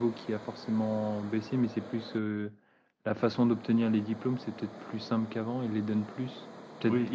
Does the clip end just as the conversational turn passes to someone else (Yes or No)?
Yes